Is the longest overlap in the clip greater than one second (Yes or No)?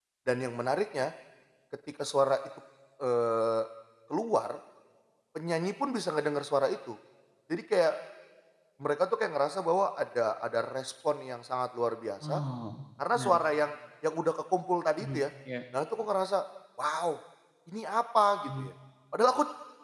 No